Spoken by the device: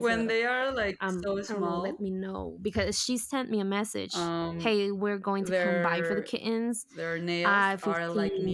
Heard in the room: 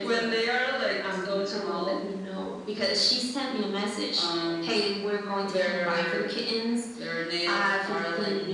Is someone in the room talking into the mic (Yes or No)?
No